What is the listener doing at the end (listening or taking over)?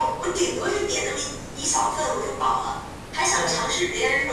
listening